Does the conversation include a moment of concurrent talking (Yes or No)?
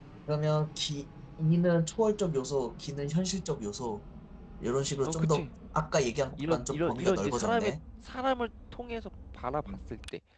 Yes